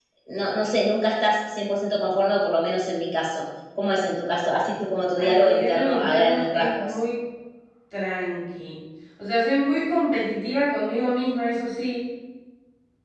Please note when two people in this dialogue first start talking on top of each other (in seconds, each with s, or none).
5.2 s